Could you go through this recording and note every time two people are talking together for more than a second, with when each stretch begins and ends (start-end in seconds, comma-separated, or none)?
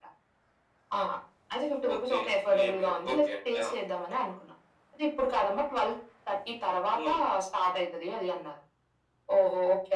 1.9-3.6